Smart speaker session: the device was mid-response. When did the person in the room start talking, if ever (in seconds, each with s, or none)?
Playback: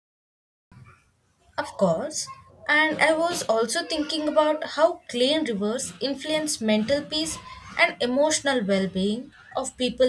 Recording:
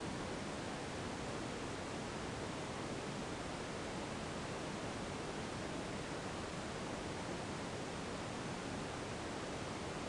none